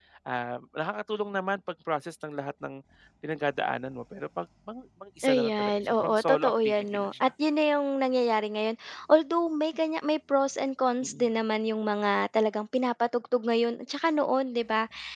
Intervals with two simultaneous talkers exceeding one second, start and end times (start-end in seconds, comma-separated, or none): 5.3-7.3